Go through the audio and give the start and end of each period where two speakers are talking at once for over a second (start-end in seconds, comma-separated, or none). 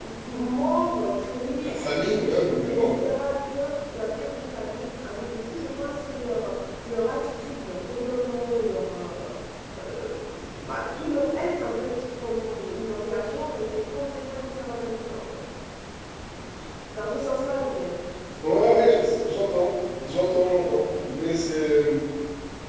none